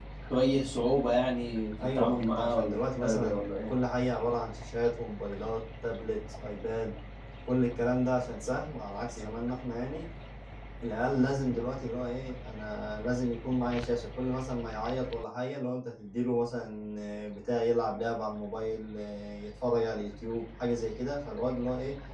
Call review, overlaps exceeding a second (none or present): present